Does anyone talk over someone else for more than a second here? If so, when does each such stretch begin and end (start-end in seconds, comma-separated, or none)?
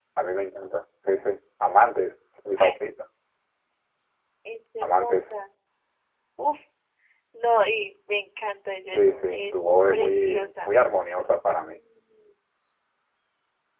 8.9-10.7